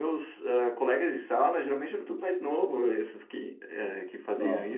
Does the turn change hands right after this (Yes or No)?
No